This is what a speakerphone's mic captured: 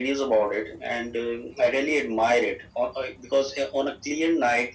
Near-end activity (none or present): none